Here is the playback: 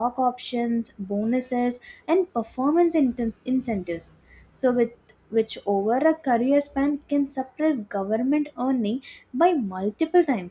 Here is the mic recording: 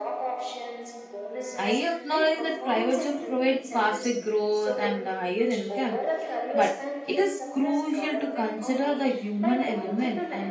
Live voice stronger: Yes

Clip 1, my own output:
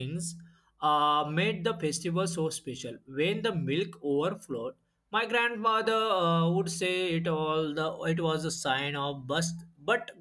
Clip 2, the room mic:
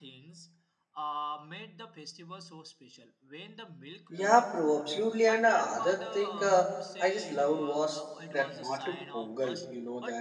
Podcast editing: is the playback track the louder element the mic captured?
No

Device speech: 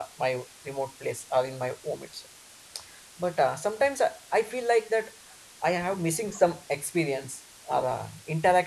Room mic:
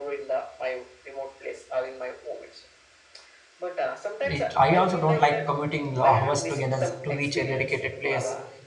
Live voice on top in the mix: Yes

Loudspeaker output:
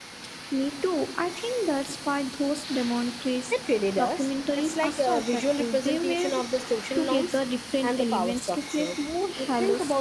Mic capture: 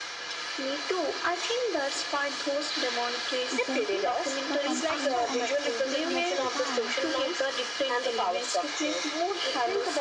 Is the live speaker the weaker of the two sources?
Yes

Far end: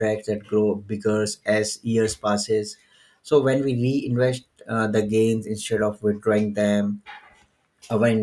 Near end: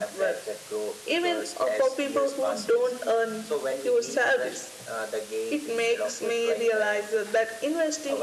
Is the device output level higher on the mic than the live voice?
No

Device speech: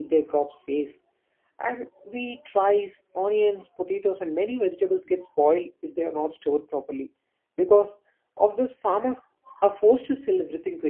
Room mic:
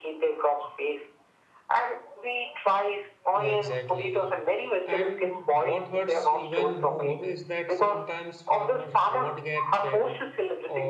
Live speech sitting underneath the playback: Yes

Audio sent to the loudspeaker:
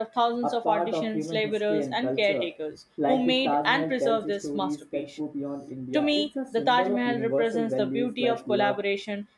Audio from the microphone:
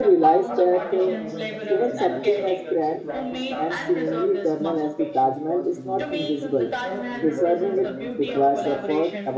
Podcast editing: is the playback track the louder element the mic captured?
No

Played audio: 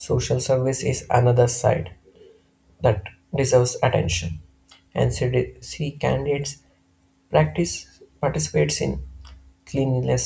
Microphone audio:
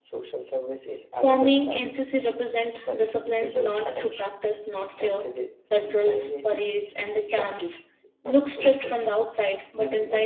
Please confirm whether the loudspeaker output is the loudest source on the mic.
No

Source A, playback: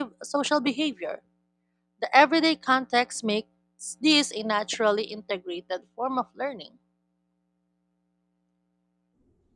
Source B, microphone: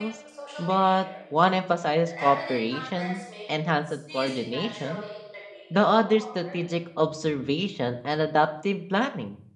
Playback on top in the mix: No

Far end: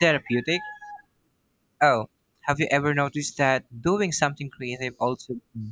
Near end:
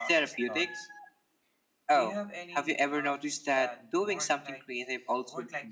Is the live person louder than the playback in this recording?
No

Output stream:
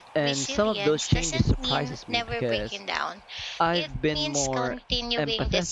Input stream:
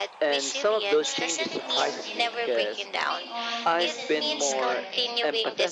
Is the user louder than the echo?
No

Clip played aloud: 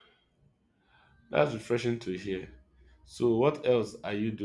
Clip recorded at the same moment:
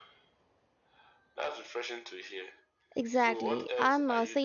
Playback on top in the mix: No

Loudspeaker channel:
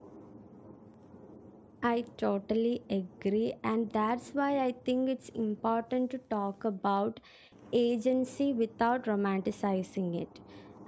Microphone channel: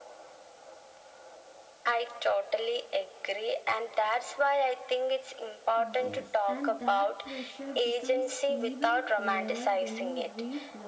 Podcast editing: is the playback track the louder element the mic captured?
Yes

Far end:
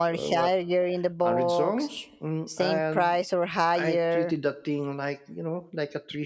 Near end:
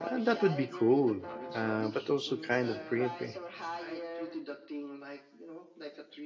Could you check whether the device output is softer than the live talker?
Yes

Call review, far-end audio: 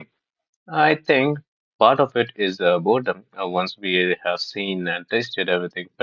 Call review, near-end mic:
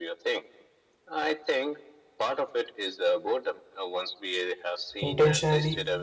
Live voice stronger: Yes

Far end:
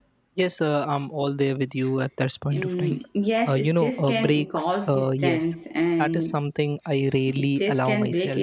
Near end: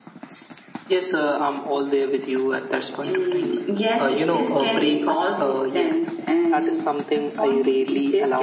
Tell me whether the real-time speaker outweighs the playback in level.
No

